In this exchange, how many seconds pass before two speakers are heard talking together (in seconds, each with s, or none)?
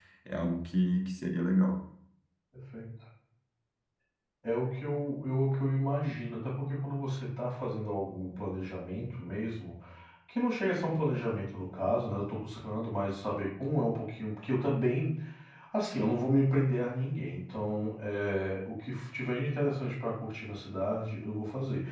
none